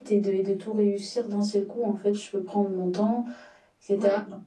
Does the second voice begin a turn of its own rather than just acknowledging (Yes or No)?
No